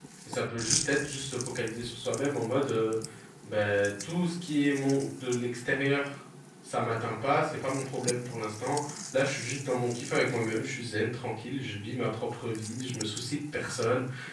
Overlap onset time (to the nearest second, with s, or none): none